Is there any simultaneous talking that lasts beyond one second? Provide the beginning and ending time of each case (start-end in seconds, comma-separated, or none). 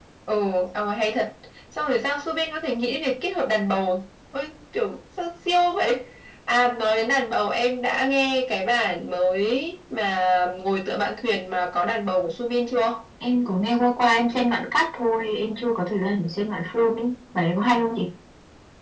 none